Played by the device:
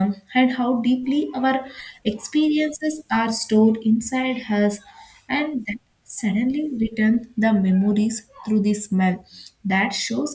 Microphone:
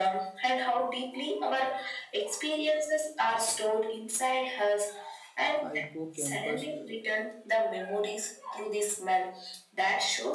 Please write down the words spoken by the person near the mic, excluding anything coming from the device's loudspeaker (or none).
hippocampus,